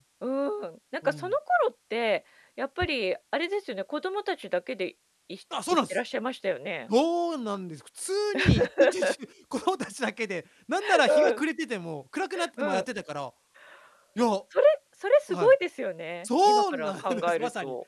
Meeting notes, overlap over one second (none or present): present